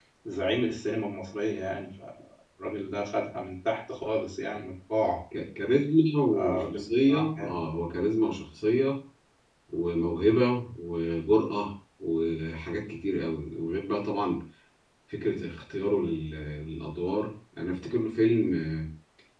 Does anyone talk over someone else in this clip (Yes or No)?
Yes